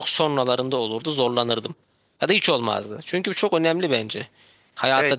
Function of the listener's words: taking over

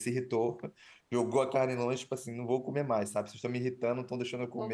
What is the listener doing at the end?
listening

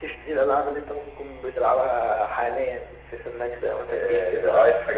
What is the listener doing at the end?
taking over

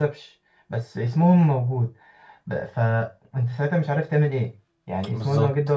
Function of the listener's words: listening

